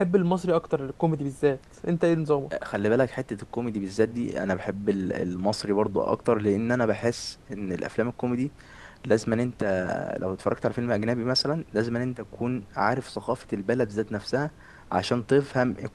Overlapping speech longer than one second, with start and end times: none

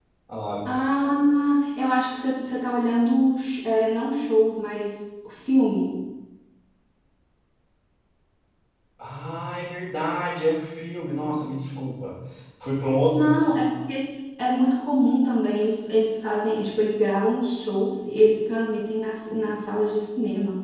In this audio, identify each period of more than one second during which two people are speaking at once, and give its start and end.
none

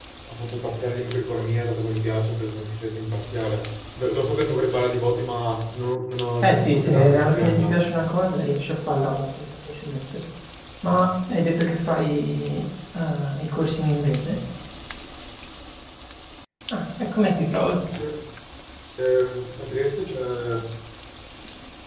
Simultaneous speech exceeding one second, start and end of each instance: 6.4-7.8

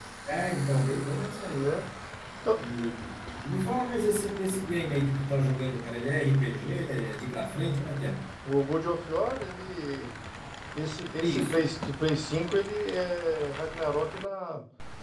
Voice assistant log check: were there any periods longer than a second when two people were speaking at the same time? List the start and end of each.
none

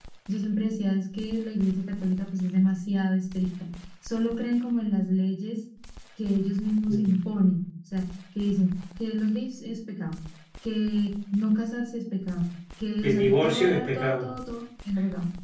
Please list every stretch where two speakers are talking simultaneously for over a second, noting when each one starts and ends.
13.0-14.3

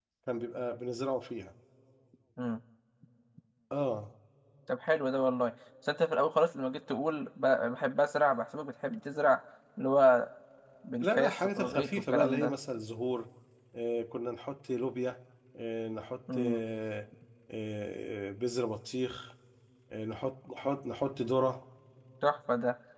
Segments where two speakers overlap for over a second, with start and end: 11.0-12.5

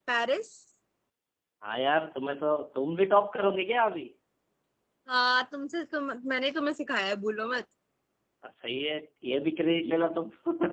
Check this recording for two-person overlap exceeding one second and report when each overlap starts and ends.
none

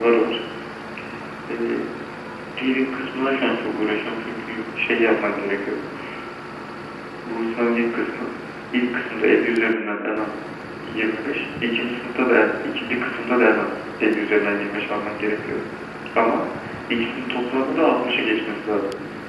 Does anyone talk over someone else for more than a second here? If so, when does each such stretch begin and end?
none

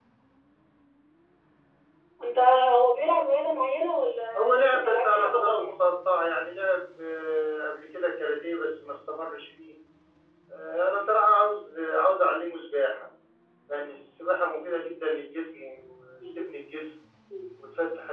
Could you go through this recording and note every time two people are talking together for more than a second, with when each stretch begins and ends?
4.4-5.8

